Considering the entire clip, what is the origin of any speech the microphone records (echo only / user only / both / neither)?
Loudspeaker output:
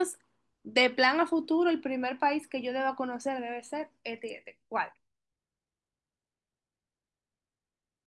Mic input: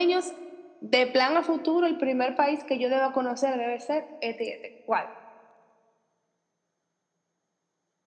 echo only